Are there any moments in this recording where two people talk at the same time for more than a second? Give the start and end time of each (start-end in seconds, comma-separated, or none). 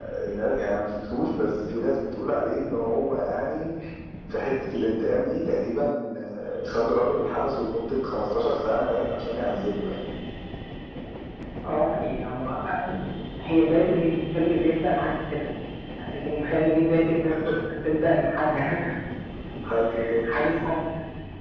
none